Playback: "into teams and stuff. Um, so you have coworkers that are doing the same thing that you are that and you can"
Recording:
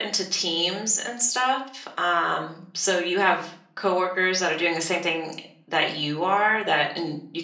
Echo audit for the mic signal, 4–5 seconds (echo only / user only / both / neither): echo only